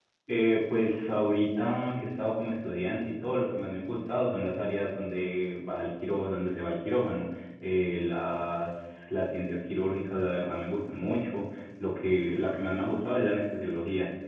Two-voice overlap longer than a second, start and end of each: none

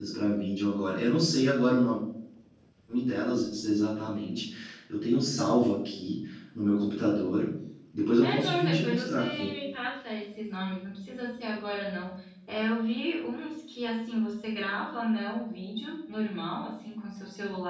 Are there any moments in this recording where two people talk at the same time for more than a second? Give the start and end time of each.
8.2-9.5

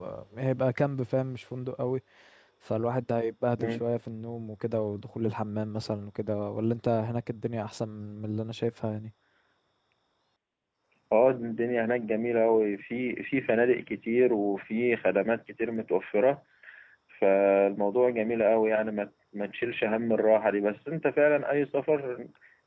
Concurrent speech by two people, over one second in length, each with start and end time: none

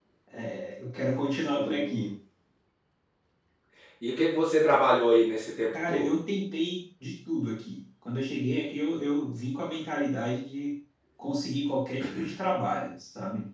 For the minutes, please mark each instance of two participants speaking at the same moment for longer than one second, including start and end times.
none

